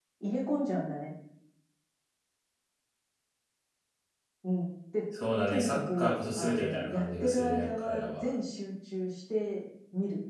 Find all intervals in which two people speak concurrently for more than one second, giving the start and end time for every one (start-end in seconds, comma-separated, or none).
5.5-8.3